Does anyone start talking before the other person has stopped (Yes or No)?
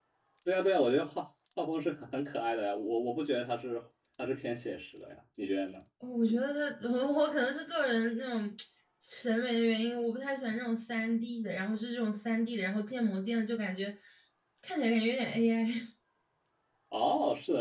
No